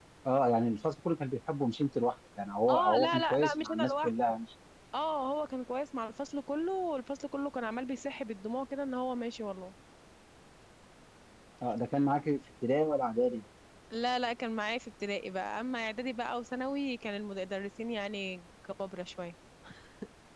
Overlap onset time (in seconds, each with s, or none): 2.7 s